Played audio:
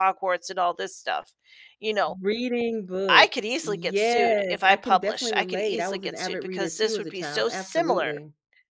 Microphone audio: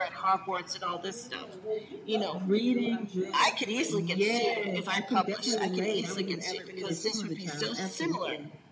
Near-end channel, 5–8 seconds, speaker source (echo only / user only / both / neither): both